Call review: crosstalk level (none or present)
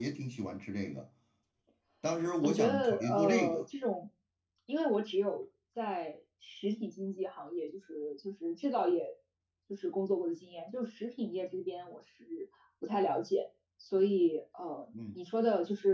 present